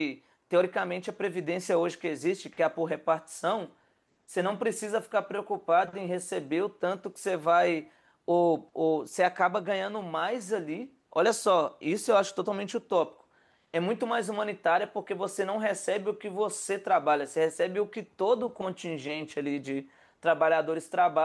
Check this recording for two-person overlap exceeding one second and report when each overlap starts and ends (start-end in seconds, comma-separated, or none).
none